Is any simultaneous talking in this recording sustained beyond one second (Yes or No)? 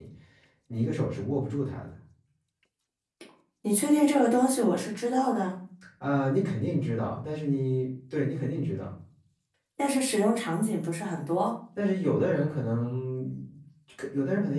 No